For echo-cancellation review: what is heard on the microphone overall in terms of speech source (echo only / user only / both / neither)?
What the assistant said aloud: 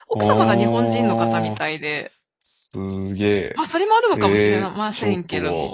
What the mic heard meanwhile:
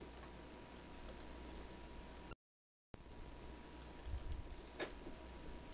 neither